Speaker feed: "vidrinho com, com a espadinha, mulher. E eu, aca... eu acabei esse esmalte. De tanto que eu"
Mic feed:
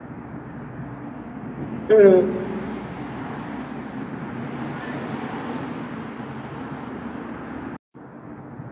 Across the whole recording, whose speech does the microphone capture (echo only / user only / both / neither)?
user only